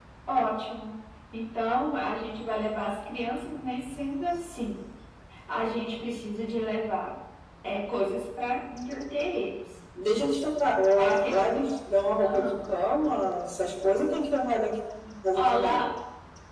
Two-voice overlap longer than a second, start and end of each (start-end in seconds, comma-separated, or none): none